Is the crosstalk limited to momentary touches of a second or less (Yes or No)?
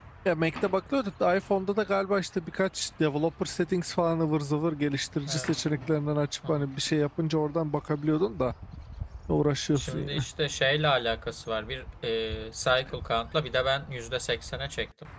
Yes